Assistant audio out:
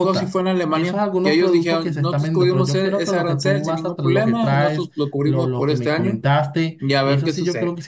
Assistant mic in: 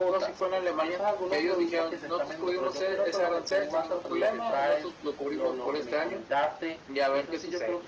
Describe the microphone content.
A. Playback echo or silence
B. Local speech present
A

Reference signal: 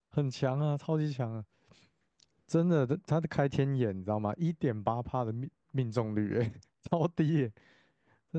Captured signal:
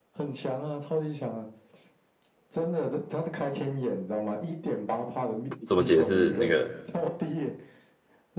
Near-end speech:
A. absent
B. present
B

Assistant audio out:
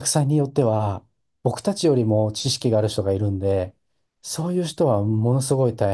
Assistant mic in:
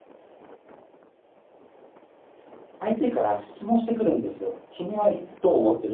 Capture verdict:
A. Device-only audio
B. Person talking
B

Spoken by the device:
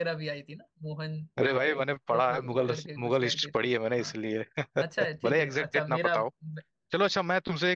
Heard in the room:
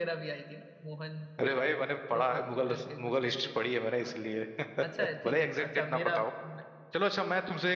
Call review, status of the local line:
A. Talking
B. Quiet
B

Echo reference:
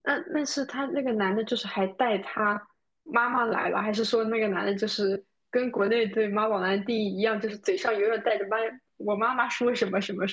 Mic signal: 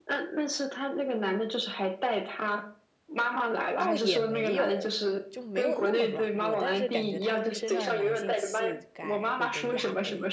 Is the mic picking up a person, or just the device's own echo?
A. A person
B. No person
A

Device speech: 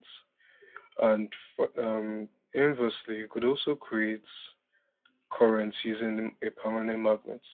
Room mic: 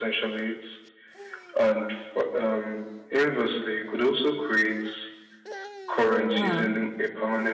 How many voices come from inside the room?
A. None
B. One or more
B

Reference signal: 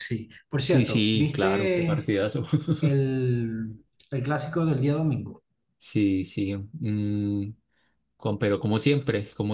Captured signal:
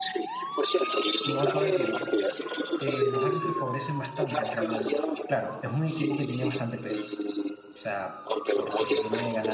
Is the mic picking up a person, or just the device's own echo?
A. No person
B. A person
B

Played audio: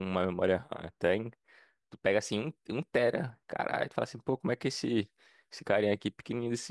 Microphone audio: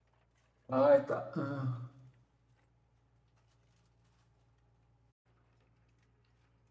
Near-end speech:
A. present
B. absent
A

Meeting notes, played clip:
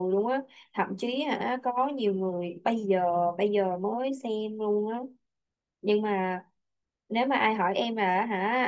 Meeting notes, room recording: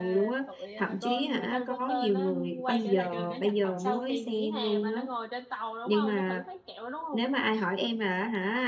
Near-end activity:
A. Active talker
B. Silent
A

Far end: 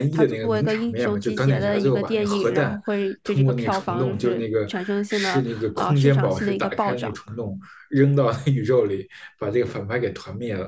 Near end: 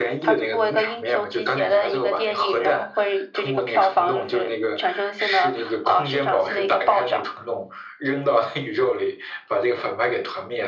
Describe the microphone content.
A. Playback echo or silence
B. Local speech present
A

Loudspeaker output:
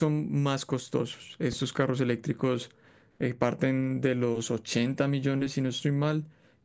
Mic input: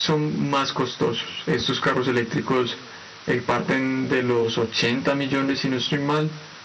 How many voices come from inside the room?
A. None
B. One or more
A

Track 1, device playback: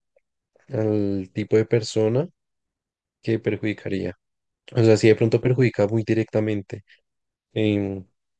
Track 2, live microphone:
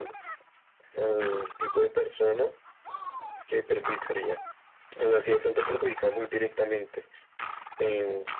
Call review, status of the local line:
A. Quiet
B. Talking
A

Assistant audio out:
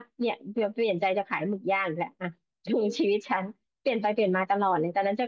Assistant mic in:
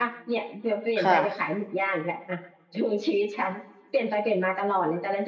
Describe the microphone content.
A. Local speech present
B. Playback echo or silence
A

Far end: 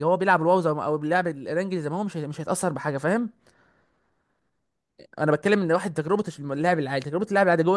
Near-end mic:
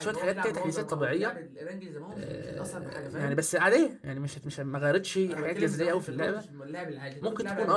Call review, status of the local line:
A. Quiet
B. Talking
B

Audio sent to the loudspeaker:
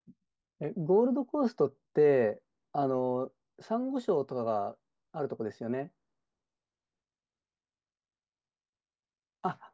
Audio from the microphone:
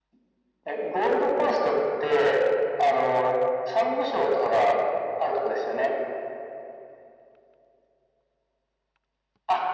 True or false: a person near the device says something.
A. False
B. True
A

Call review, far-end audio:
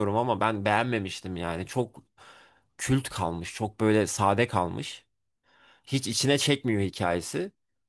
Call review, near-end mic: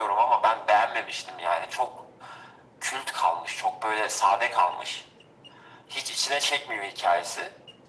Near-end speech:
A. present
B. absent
B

